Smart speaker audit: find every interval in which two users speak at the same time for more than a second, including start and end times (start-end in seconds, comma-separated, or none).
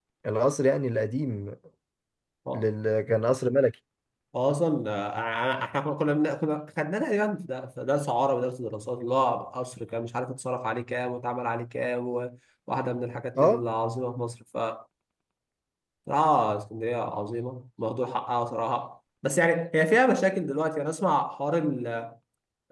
none